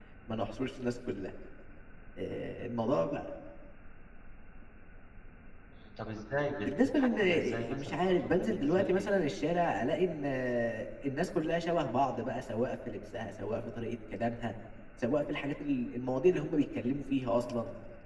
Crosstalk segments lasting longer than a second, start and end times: 6.6-9.1

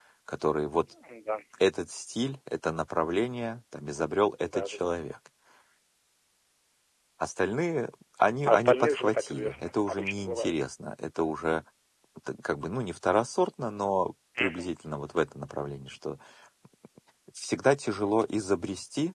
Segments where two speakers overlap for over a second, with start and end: 8.4-10.6

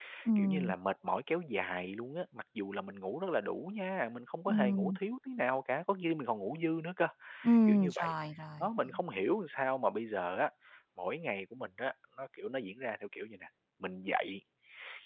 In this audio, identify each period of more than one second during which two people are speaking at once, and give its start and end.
none

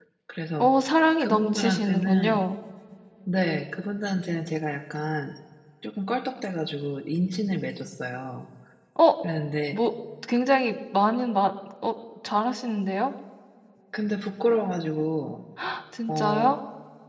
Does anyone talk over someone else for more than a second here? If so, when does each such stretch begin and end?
1.2-2.5

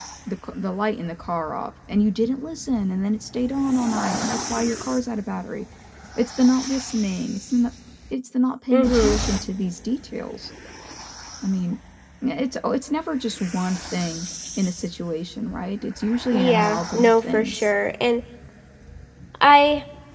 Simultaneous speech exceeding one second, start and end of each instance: 16.3-17.7

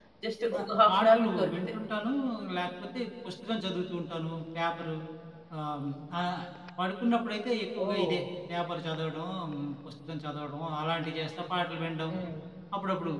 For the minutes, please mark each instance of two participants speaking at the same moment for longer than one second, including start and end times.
0.5-1.7

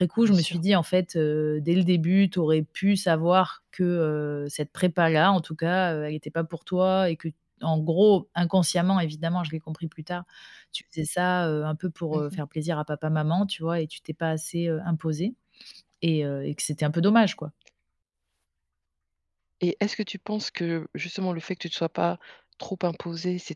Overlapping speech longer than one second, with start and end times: none

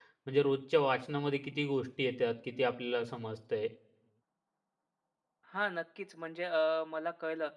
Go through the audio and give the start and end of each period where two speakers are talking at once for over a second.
none

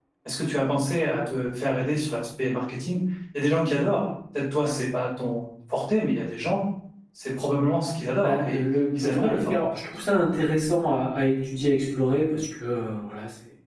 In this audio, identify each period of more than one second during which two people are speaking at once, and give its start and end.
8.2-9.7

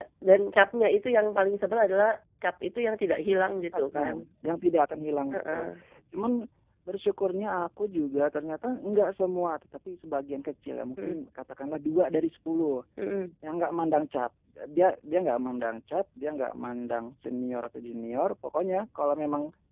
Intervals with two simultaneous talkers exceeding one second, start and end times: none

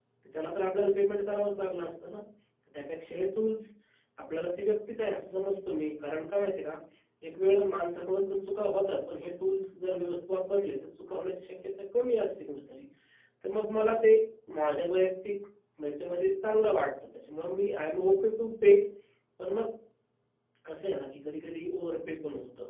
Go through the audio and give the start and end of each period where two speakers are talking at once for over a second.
none

